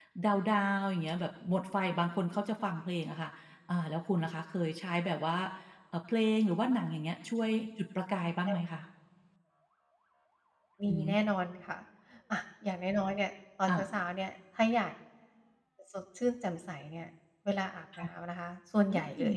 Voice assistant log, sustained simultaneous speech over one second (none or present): none